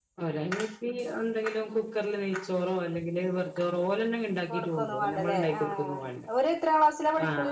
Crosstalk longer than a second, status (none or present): present